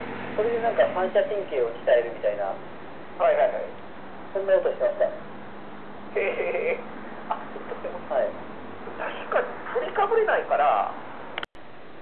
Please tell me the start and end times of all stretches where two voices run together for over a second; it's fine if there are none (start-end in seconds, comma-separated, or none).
none